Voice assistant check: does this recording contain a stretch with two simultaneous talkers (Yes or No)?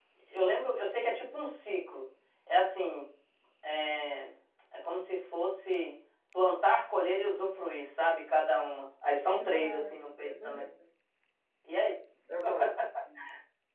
Yes